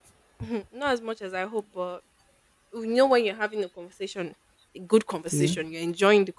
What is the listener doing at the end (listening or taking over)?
listening